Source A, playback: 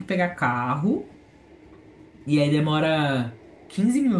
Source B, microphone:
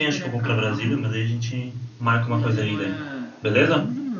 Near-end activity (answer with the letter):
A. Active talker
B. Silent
A